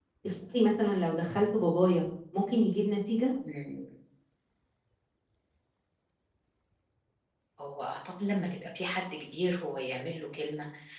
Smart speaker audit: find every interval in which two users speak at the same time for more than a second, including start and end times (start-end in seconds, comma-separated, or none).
none